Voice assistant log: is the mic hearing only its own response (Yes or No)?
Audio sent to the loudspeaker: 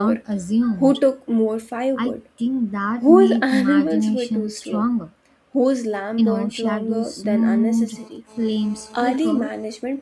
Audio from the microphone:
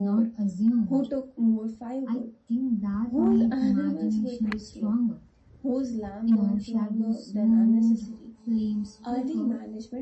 Yes